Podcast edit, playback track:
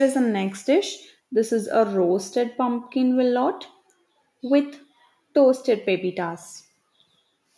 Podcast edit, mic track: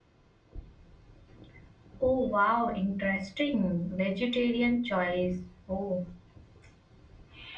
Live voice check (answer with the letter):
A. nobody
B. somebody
B